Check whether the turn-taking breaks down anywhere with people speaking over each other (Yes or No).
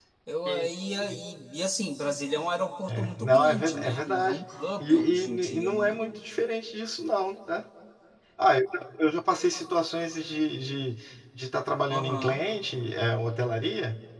Yes